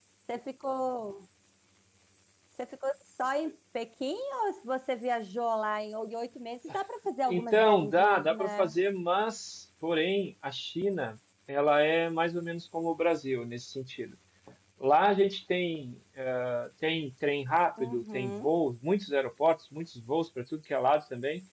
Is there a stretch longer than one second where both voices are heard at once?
Yes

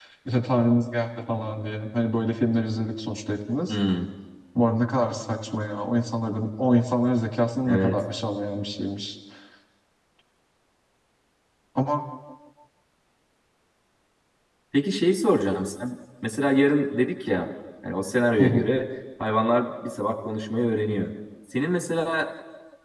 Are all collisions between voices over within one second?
Yes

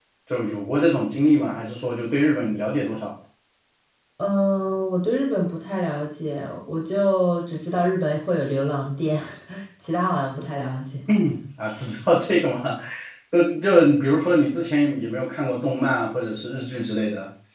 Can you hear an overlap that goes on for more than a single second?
No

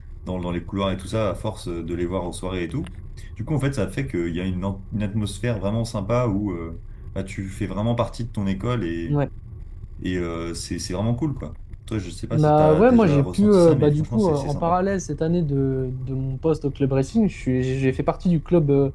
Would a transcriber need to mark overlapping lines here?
Yes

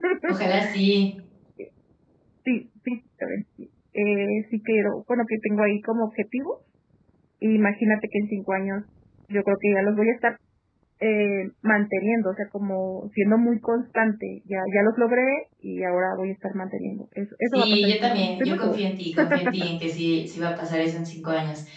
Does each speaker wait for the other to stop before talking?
No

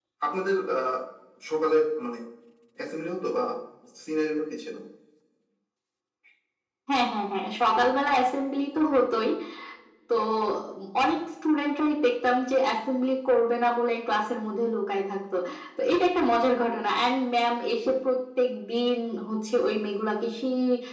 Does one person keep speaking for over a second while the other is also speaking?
No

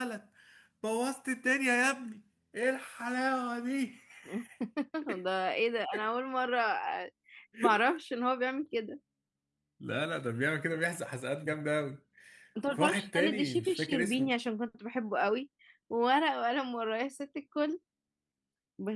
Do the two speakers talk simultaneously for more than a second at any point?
Yes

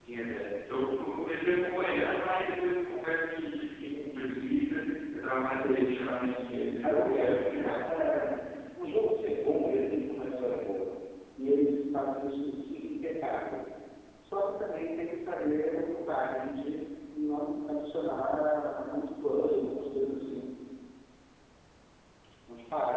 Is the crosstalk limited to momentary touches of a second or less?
No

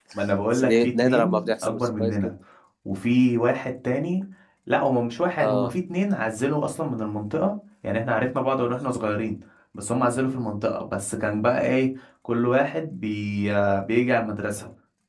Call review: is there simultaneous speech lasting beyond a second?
Yes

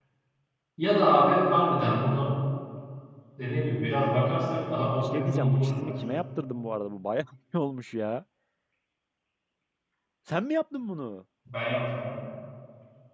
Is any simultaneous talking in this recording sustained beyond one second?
Yes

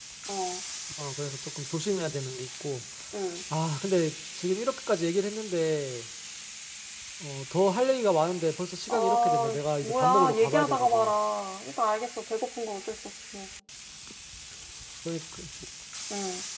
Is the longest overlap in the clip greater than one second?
Yes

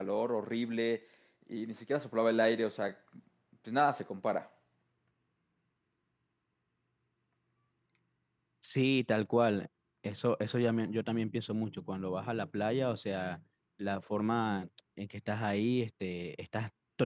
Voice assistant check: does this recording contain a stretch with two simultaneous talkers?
No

